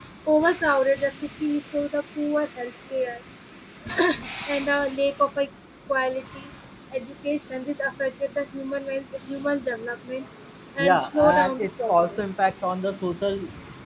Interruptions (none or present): present